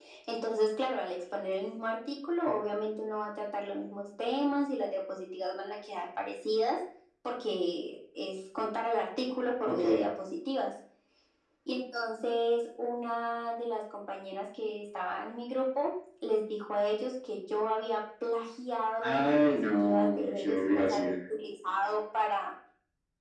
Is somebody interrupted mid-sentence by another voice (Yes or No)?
Yes